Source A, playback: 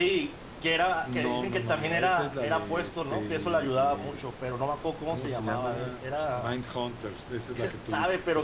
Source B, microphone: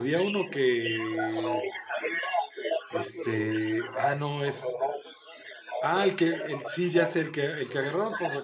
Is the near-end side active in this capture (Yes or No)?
Yes